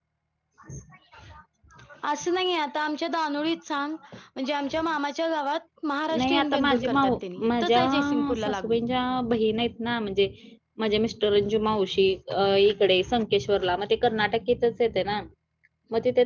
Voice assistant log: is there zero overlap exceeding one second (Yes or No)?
No